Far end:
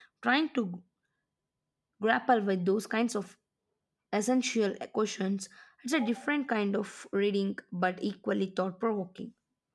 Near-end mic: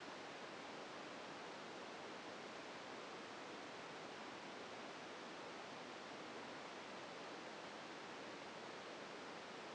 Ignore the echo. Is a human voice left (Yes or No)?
No